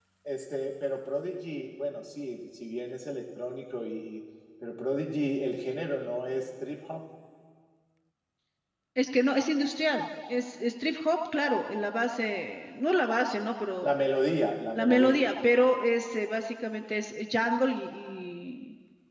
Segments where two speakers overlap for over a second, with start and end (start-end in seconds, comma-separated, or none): none